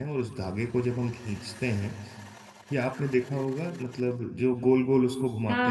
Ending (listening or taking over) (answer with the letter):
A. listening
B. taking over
B